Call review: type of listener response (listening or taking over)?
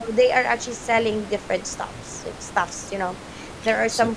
taking over